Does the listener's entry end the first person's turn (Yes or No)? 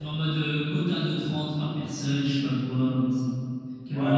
Yes